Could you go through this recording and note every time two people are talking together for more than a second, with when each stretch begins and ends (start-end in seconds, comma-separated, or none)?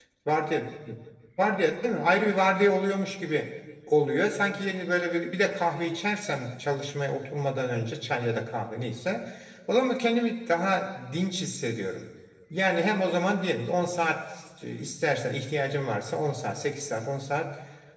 none